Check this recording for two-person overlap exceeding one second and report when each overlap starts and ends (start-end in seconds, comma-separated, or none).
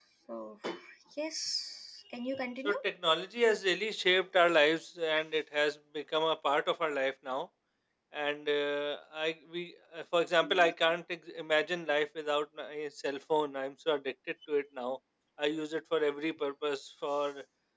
none